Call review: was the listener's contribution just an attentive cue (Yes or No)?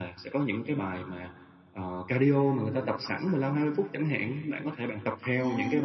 Yes